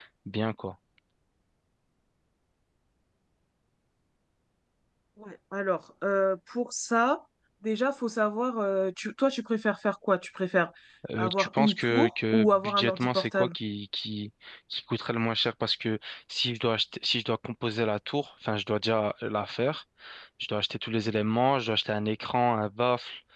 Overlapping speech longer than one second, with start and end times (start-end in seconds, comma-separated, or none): 11.2-13.5